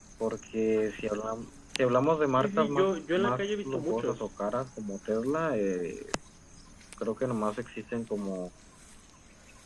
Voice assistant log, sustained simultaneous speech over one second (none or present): present